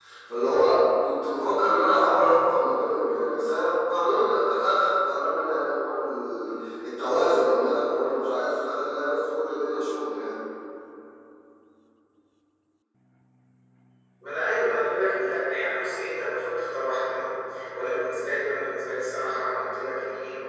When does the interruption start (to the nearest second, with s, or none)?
none